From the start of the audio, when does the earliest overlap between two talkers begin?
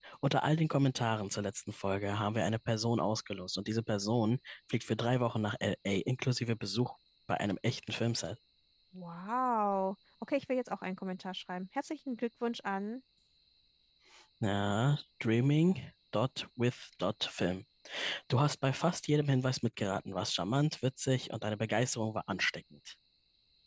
none

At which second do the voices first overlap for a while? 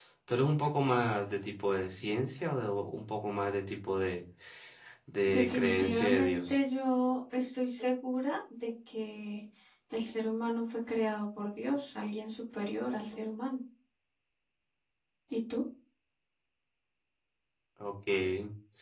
5.3 s

